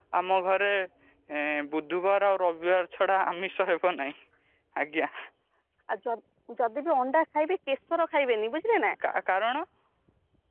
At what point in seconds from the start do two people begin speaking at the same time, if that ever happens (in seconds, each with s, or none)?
none